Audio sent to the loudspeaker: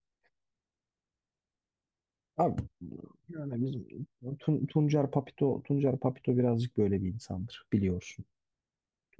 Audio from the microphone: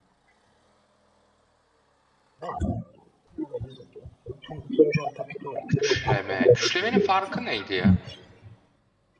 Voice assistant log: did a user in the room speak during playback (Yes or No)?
Yes